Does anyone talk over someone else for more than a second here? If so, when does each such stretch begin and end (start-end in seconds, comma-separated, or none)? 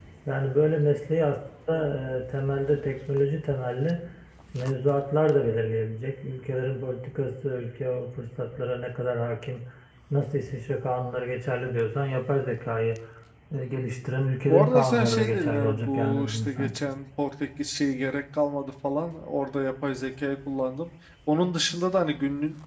14.5-16.9